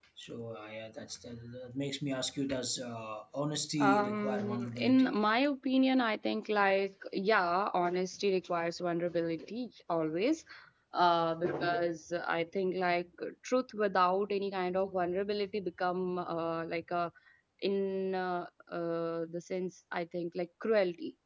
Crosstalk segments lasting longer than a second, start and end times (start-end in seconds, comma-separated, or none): 3.8-5.1